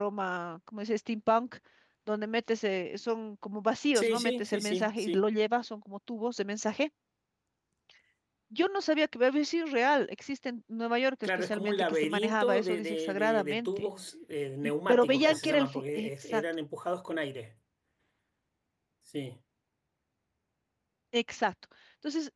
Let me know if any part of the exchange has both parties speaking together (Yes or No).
Yes